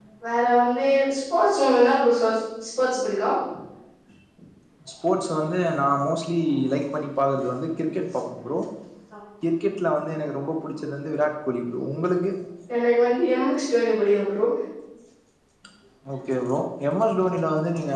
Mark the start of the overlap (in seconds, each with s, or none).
none